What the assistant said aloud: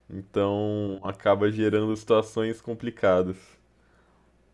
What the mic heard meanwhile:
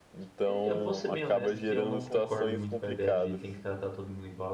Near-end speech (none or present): present